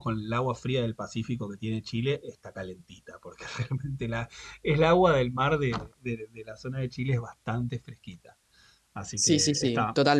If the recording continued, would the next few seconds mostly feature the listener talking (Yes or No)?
Yes